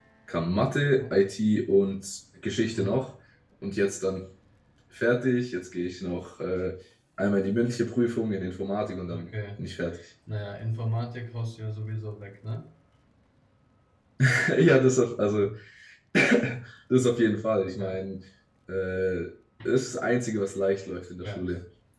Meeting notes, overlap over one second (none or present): none